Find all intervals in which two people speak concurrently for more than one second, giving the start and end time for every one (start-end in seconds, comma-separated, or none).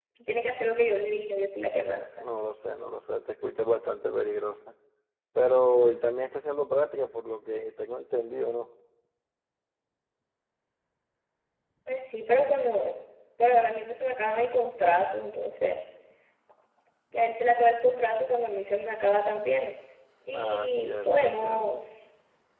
20.3-21.9